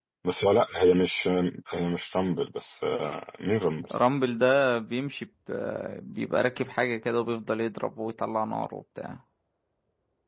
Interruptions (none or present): none